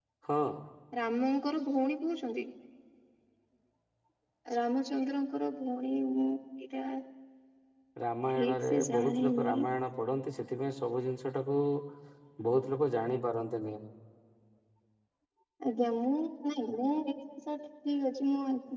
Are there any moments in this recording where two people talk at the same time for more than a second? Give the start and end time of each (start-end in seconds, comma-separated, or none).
8.3-9.6